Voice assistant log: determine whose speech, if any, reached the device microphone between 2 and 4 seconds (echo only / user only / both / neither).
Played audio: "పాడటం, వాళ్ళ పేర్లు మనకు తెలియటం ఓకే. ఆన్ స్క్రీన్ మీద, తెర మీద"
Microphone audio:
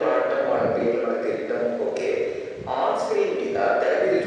echo only